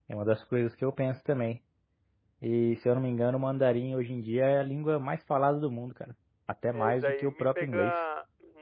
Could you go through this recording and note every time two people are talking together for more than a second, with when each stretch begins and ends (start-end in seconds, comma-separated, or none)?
6.7-7.9